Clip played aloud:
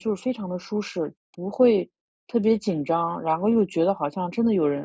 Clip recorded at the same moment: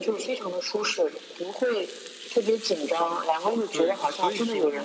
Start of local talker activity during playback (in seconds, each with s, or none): 3.7 s